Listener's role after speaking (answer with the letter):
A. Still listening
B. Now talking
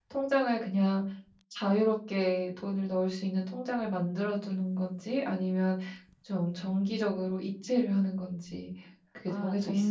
B